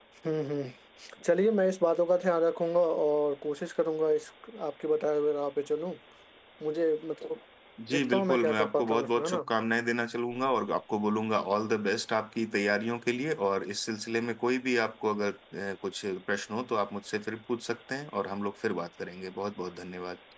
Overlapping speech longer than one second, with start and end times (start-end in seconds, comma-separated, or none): 7.9-9.5